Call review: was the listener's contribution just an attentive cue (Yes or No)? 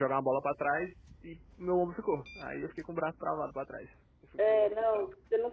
No